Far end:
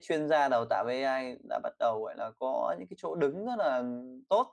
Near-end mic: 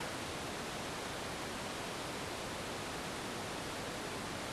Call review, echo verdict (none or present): none